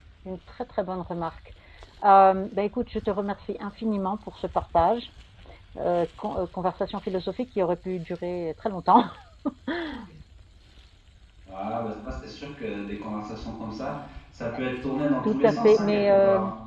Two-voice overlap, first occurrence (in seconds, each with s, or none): 15.2 s